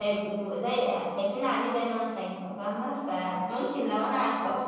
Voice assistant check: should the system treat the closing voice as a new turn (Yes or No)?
No